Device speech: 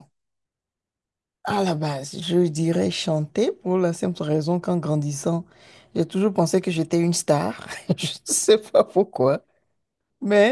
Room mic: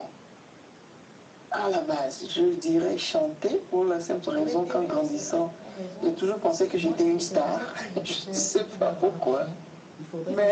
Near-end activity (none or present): present